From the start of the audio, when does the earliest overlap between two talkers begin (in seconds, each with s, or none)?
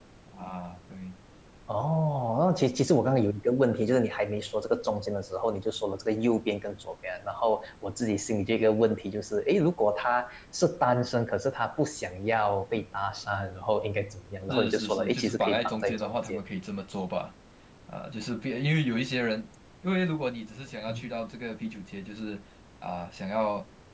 14.5 s